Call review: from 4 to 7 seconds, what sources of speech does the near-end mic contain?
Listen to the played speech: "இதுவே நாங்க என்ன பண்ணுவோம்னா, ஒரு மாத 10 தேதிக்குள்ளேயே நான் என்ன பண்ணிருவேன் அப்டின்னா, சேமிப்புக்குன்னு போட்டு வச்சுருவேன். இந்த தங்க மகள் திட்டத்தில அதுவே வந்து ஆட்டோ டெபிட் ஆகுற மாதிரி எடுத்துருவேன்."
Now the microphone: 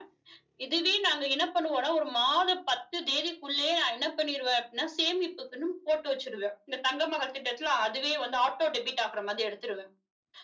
echo only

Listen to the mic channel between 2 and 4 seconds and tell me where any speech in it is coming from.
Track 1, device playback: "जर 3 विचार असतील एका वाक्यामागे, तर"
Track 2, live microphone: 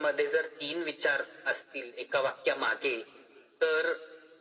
echo only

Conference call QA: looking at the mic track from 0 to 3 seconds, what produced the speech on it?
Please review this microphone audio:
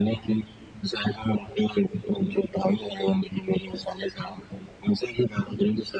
echo only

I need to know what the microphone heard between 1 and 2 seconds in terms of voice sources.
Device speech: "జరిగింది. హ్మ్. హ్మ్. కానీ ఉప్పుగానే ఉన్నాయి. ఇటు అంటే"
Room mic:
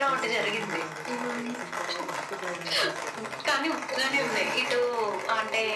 both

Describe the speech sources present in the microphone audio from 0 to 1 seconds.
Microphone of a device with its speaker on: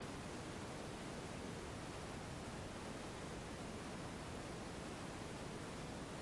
neither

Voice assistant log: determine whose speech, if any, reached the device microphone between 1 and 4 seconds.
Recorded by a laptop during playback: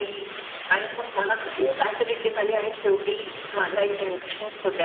echo only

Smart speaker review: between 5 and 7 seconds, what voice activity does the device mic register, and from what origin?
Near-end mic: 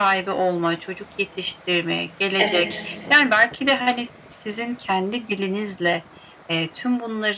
echo only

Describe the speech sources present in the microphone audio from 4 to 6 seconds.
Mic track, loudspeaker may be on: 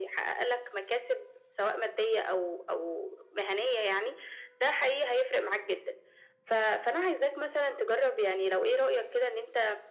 echo only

